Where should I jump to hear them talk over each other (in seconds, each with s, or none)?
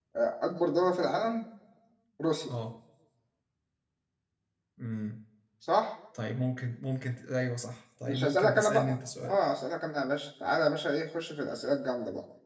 8.1 s